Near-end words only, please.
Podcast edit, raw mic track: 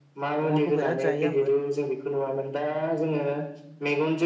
अमाखौ बिराद जायो आंबो।

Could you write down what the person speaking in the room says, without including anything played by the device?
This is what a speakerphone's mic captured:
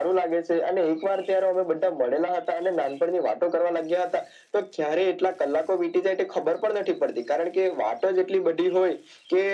none

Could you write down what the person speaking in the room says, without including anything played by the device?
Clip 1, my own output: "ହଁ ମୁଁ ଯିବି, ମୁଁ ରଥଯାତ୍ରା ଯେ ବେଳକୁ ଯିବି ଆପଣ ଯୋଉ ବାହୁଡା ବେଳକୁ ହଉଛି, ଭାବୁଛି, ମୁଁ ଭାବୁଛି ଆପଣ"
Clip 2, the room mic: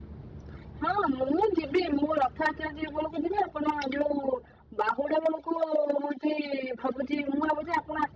none

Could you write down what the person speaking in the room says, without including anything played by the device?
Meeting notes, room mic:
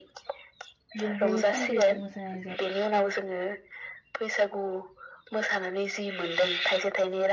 बेनिखायनो सानब्रैखौ मोसानाय जा

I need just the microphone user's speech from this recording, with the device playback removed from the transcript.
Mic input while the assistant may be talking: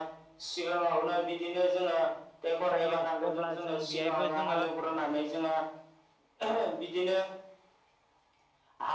थायो अब्ला जों बेहायबो जोङो

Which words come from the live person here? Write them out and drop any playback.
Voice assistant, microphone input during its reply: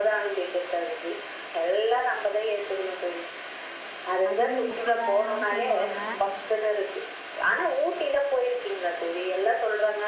அதுக்கே முப்பதாயிரோ சொல்லுவாங்க

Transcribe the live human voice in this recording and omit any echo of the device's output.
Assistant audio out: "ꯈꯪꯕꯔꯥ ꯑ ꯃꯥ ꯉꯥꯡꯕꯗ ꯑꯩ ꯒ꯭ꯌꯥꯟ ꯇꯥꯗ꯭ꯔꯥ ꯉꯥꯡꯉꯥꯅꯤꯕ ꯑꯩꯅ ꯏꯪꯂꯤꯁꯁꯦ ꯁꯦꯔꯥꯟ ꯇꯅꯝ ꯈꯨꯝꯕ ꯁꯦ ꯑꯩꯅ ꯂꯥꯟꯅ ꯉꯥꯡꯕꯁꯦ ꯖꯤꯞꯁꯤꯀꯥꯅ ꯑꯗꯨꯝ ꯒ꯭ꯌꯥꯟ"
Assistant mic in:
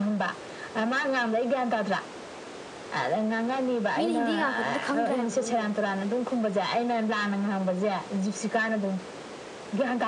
ꯃꯤꯅ ꯍꯤꯟꯗꯤ ꯉꯥꯡꯉꯛꯄꯗꯨ ꯈꯪꯗ꯭ꯔꯦ ꯍꯥꯏꯕ ꯅꯪꯕꯨꯣ

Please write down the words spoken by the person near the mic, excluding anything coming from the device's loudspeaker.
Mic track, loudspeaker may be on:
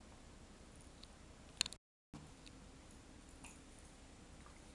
none

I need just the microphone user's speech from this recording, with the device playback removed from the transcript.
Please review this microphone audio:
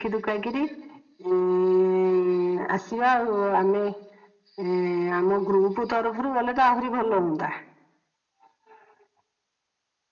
none

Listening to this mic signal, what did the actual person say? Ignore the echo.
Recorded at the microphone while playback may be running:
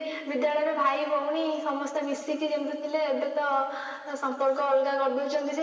none

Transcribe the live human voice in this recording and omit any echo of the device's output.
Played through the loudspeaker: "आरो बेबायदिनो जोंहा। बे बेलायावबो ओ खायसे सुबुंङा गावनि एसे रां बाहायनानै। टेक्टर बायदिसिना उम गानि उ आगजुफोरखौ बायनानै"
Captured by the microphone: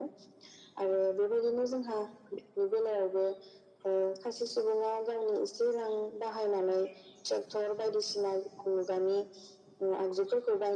none

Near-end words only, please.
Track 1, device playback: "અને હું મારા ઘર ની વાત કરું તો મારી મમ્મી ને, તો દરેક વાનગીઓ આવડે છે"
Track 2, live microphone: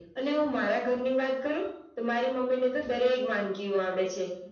none

